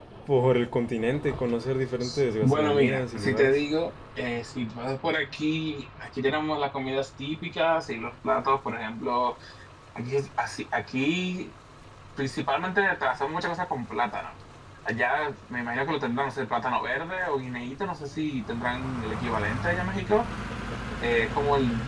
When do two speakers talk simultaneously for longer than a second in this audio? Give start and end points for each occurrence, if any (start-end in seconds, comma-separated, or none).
2.4-3.6